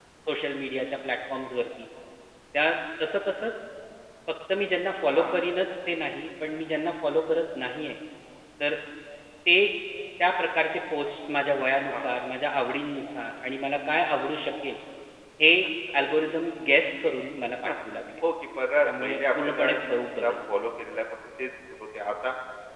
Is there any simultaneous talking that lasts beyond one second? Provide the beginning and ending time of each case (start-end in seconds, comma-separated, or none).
18.8-20.5